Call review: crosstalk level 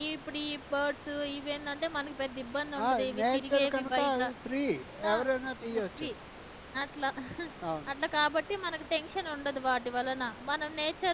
present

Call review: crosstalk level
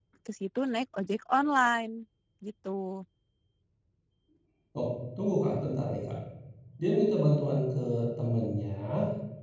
none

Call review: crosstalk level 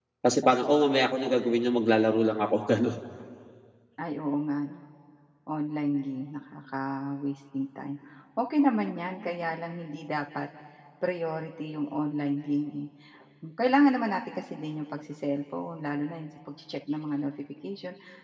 none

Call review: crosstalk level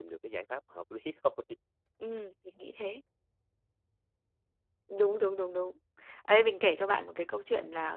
none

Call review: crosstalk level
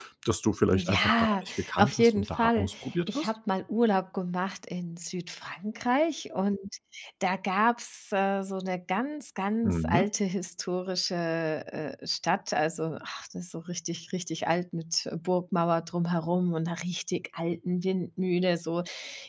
present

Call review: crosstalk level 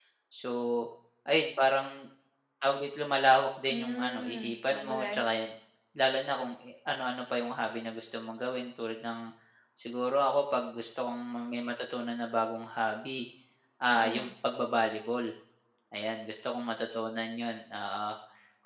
present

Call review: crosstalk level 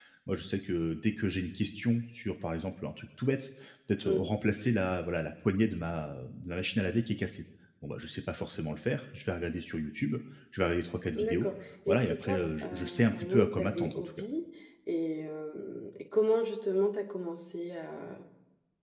present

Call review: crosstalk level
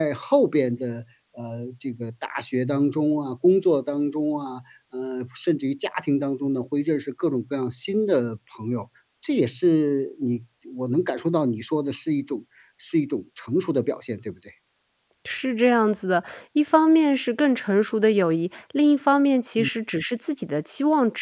none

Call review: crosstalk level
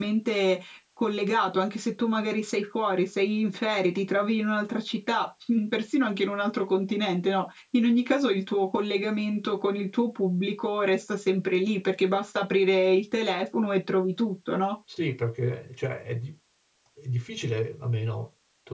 none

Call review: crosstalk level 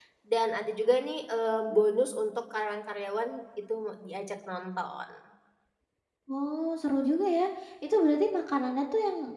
none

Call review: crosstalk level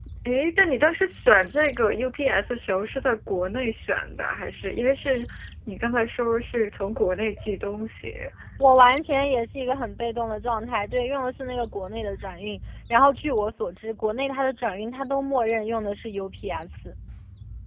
none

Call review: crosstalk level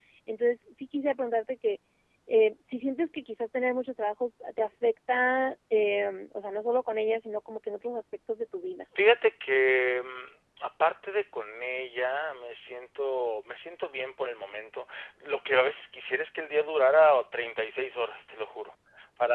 none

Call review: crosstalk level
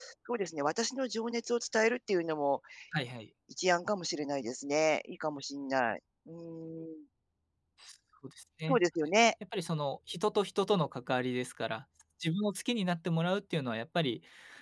none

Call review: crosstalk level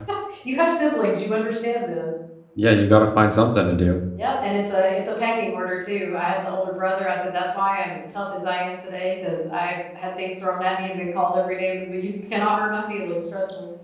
none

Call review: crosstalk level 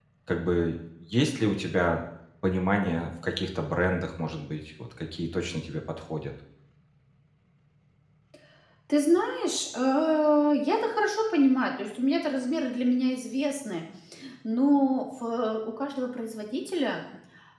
none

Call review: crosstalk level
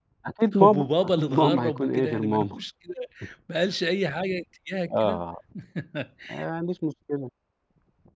present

